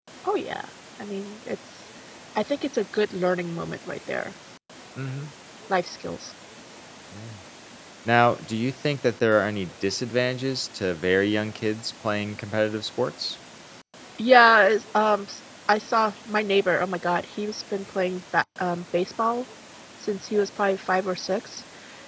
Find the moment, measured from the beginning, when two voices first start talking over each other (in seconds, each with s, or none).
none